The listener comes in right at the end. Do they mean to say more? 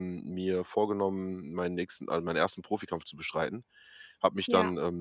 No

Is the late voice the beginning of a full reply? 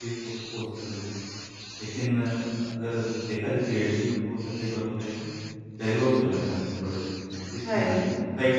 No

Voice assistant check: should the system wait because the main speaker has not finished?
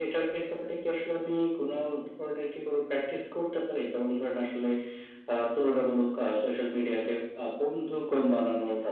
Yes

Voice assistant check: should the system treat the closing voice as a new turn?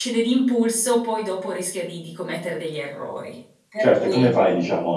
Yes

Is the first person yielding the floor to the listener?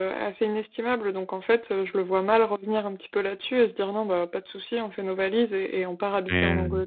No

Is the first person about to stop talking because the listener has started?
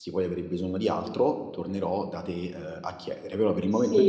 Yes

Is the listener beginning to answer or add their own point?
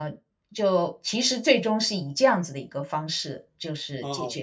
Yes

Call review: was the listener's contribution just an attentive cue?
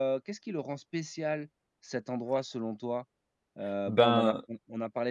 Yes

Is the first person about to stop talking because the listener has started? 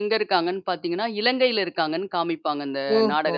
Yes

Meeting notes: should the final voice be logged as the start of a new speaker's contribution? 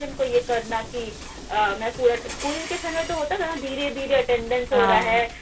No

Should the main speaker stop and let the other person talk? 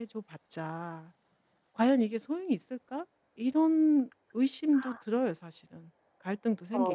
Yes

